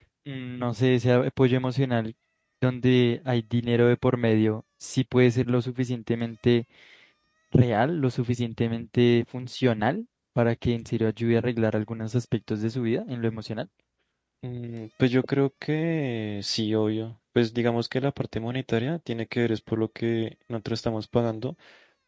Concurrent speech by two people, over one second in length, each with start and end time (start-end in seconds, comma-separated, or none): none